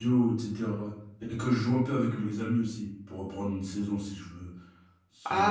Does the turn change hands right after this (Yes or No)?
Yes